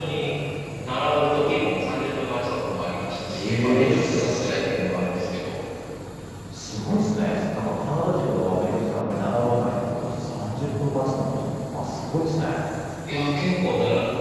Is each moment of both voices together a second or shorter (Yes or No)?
No